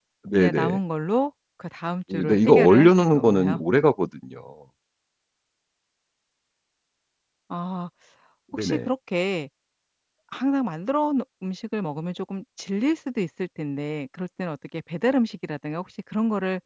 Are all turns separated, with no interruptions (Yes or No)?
No